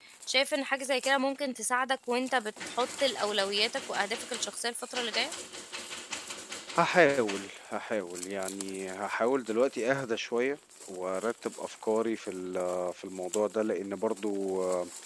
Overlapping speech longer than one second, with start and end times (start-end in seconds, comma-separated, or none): none